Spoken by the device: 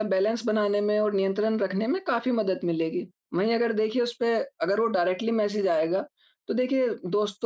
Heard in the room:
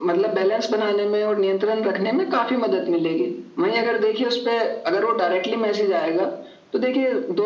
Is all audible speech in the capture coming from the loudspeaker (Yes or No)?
Yes